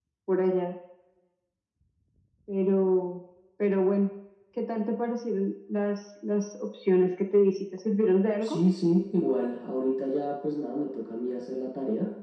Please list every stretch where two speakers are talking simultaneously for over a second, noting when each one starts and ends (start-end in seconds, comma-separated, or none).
none